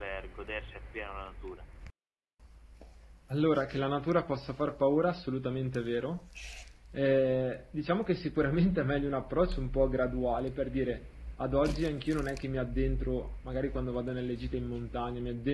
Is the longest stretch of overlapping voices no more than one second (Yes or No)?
Yes